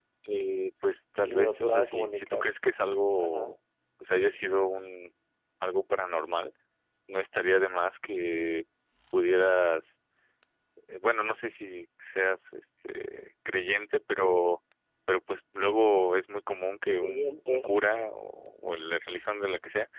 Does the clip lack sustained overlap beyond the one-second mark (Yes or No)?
No